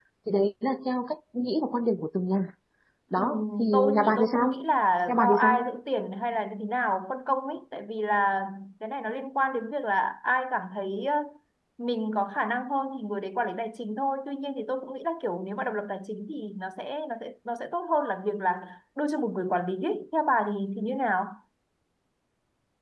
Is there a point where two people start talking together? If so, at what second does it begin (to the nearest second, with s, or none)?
3 s